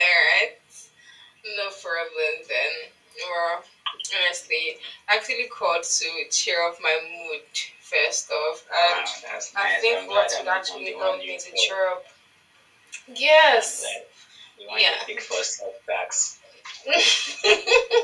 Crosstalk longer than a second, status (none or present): present